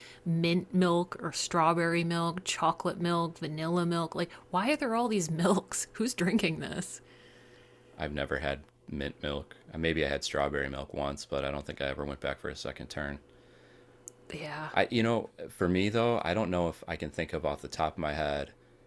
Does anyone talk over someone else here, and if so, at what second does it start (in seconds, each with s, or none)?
none